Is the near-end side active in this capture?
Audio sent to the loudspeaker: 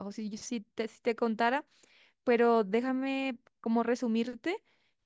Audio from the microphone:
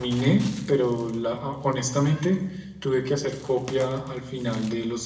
Yes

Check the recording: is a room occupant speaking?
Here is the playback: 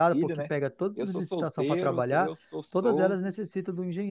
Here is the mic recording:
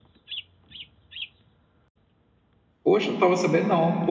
Yes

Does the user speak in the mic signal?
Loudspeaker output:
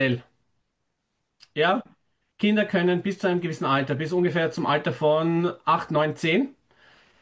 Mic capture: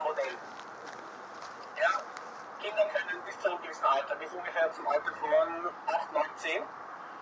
No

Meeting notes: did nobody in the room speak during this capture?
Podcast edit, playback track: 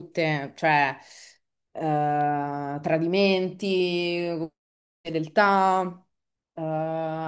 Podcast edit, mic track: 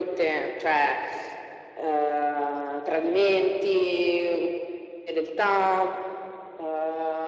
Yes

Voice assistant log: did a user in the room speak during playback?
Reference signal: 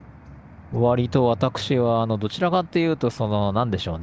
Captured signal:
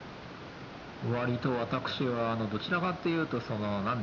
No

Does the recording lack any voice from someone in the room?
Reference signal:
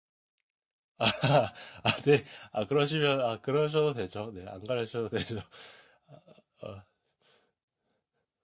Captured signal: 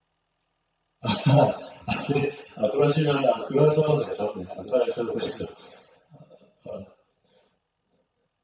Yes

